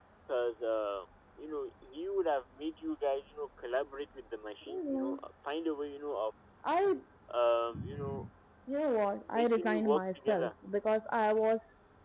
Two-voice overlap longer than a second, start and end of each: 9.2-10.5

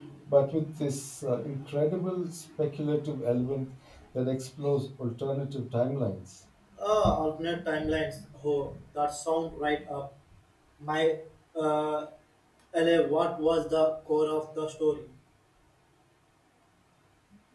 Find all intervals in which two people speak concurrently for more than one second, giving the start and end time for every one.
none

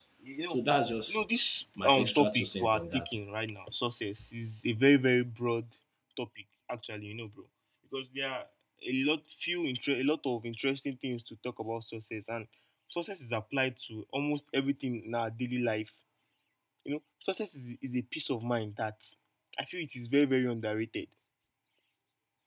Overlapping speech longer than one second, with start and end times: 1.8-3.2

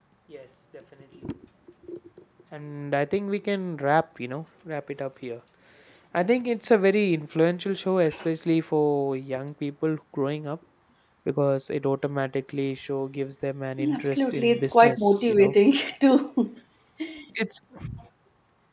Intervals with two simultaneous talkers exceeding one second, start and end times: 13.9-15.5

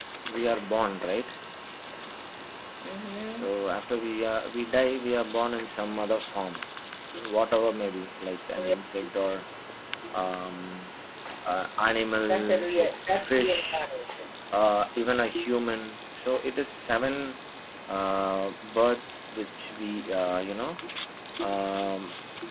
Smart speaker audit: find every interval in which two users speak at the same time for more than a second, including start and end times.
12.3-13.8

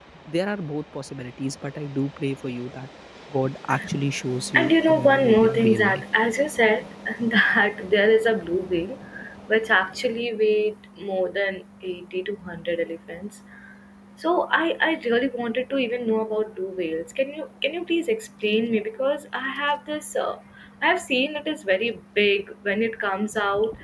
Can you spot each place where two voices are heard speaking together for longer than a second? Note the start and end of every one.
4.5-6.0

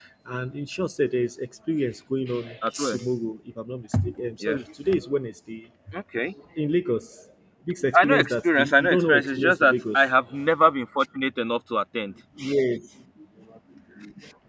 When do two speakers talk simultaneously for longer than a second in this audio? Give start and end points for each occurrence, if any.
7.9-10.1

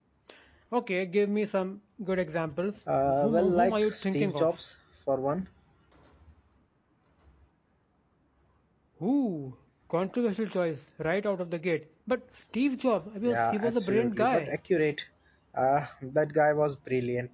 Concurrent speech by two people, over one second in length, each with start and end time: 3.0-4.5, 13.2-14.5

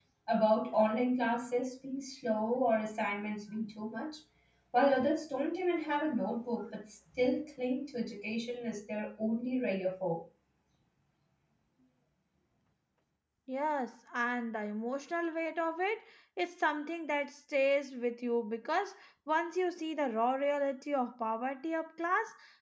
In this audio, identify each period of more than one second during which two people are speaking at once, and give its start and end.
none

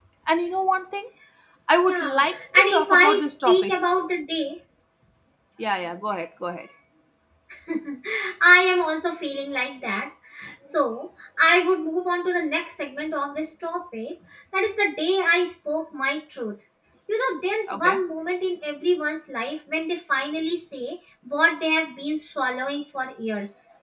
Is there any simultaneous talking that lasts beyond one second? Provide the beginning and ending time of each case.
1.8-3.7

